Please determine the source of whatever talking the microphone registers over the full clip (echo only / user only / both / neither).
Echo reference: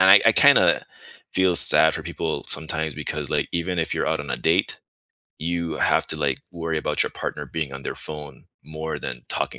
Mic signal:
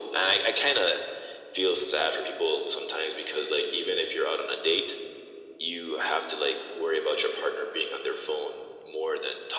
echo only